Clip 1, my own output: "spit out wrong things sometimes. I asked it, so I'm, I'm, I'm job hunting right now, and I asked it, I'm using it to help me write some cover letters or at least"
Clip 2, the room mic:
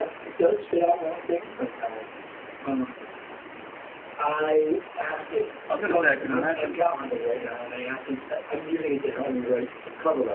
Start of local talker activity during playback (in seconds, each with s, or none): 5.7 s